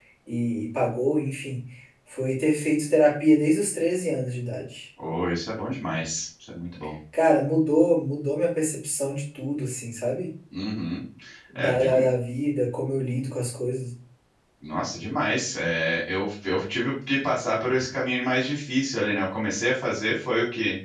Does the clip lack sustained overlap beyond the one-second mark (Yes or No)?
Yes